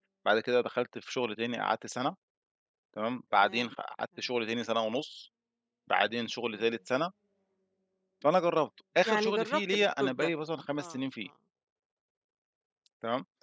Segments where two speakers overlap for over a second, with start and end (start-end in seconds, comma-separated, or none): 9.1-10.3